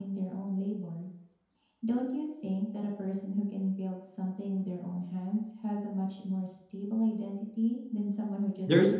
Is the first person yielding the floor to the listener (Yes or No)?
Yes